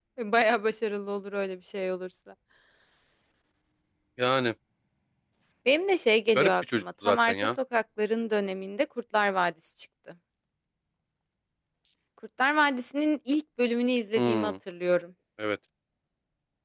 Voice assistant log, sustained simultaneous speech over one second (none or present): present